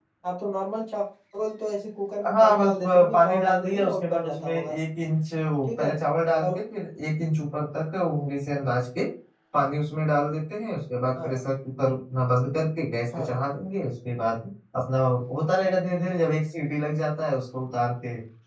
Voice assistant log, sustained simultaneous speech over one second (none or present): present